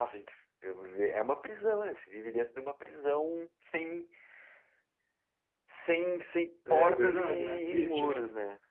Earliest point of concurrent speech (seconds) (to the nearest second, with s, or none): 7 s